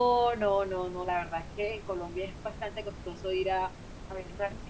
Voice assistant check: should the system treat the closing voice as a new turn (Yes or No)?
No